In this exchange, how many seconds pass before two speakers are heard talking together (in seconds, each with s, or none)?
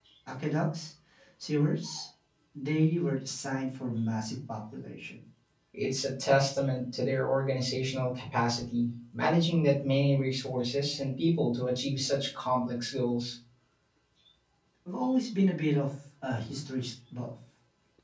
none